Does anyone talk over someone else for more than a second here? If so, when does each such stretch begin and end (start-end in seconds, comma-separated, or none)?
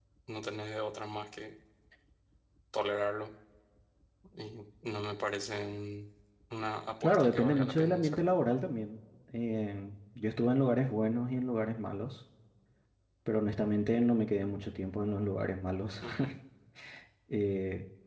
7.0-8.3